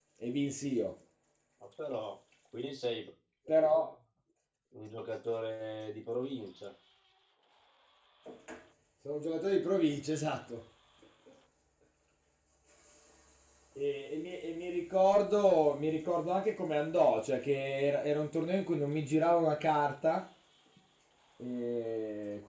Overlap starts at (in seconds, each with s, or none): none